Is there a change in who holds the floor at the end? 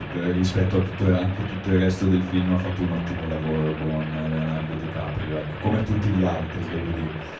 No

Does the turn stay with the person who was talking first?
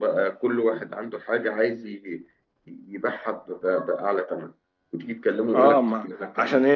No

